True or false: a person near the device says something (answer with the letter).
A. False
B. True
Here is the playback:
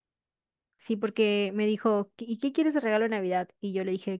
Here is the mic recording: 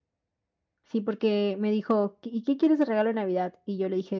A